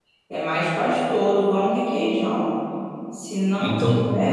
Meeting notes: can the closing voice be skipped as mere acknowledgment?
Yes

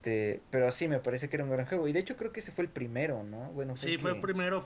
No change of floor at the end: No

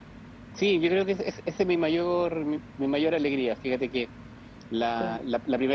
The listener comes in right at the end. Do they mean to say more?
No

